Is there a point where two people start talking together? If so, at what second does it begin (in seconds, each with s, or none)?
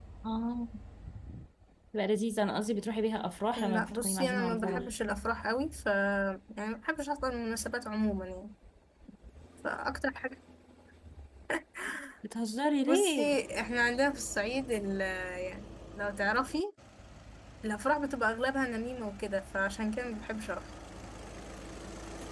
3.6 s